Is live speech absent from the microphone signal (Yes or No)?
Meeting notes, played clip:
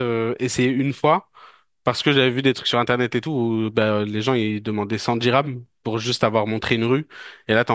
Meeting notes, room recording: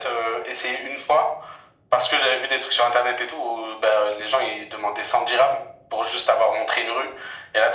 Yes